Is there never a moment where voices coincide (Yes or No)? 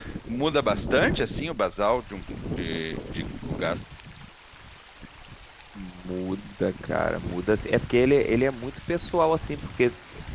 Yes